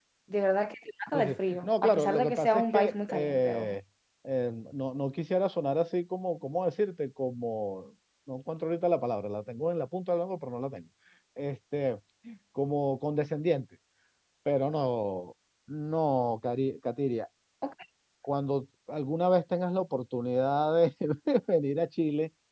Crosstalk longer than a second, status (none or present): present